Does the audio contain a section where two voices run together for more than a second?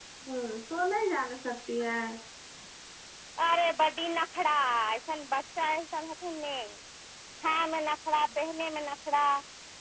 No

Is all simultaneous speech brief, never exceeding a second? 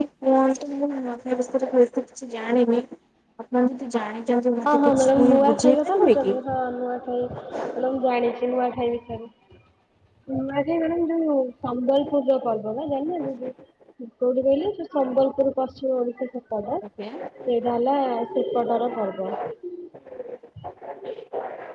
No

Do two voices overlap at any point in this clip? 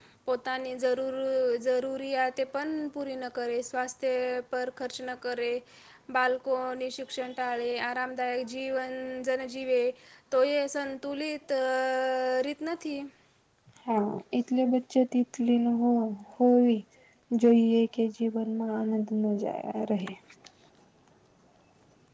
No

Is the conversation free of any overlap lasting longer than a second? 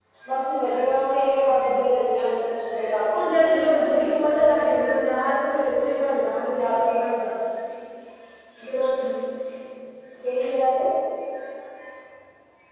No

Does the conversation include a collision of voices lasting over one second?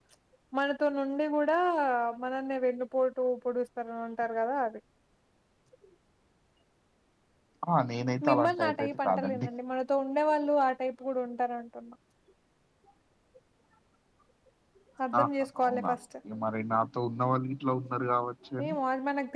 Yes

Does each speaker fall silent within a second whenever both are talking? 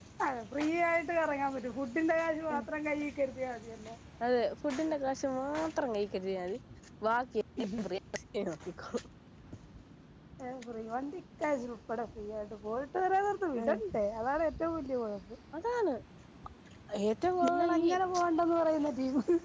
Yes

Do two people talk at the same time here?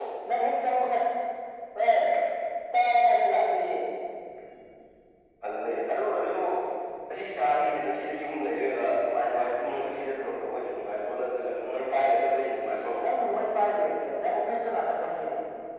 No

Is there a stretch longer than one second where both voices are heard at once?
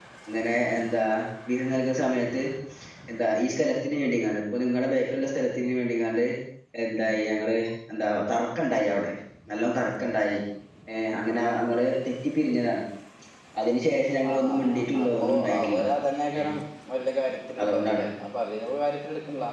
Yes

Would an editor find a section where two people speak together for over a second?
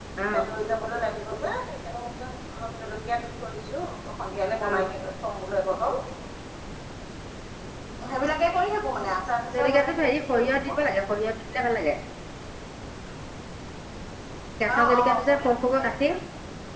Yes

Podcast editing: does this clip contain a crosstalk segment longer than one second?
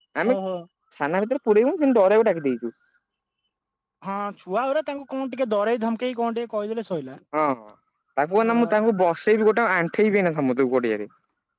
No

